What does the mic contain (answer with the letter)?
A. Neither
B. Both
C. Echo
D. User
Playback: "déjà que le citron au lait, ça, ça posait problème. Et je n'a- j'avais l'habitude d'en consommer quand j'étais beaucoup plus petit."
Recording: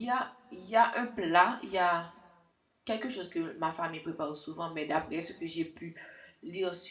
D